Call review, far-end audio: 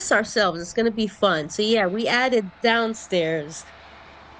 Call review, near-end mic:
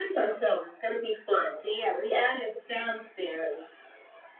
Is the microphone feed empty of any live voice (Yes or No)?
Yes